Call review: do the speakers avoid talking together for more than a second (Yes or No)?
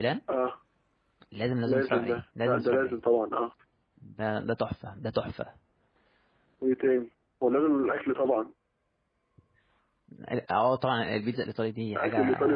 No